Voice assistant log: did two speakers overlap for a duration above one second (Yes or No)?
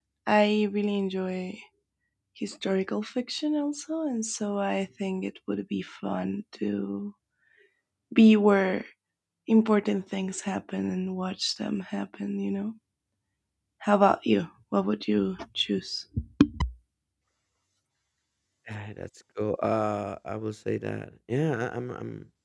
No